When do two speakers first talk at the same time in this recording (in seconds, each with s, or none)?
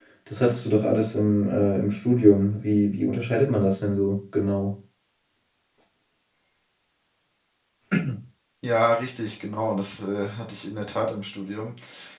none